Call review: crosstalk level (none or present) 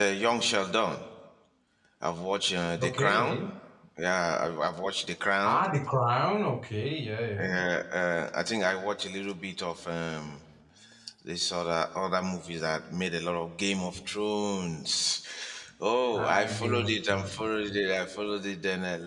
present